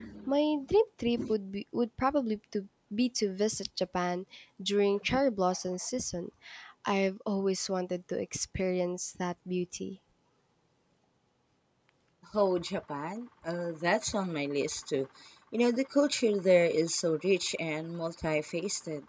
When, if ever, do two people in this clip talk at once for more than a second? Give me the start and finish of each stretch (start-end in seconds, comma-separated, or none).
none